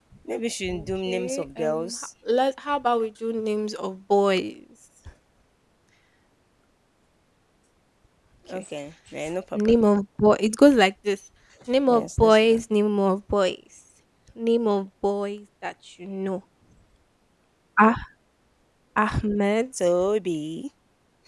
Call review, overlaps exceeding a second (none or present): present